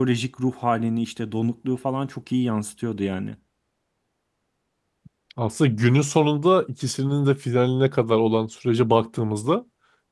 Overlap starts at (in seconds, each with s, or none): none